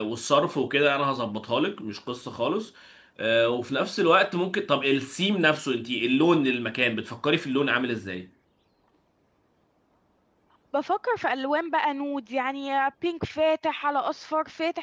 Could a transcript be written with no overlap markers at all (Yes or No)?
Yes